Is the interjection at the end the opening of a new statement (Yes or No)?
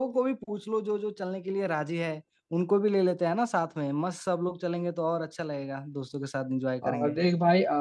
Yes